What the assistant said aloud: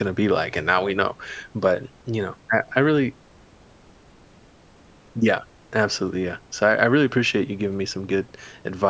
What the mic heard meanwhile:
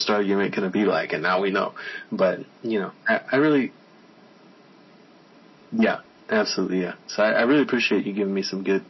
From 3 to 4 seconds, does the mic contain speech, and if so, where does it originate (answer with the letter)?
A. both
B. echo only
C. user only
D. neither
B